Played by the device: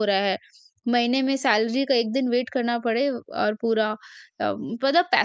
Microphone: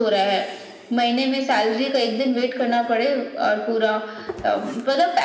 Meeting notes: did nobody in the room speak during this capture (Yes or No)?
Yes